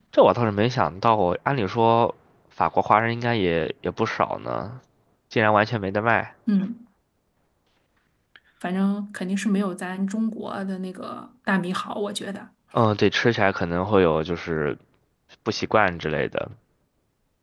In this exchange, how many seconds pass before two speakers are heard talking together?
none

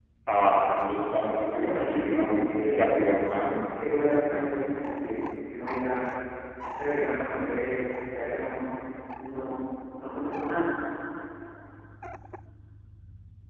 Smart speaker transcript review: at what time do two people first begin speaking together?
1.5 s

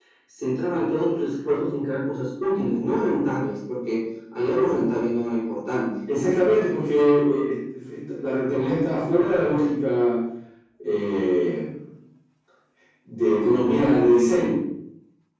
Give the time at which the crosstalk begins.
none

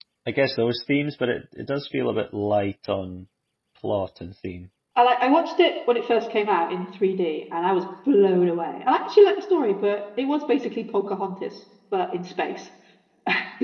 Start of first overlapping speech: none

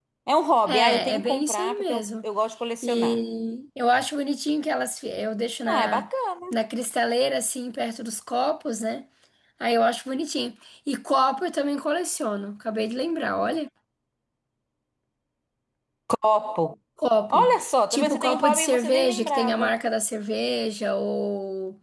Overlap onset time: 0.7 s

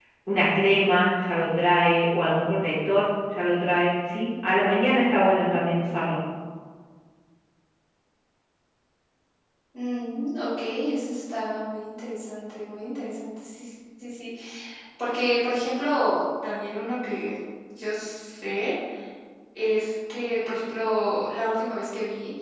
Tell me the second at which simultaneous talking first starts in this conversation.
none

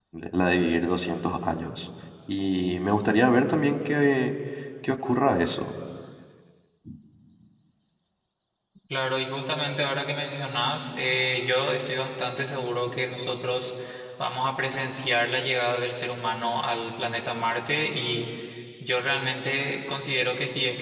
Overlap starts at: none

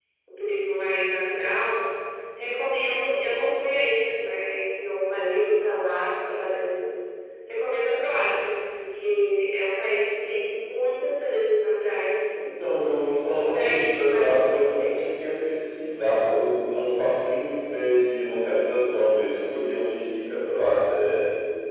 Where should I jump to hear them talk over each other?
13.2 s

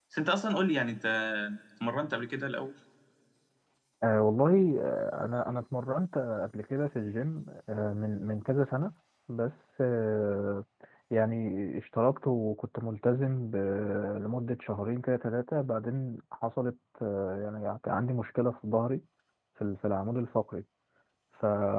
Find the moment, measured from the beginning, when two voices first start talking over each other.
none

